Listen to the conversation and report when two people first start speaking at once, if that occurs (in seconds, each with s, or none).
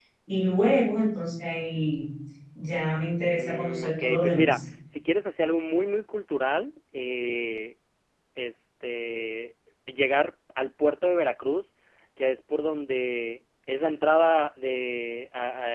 3.4 s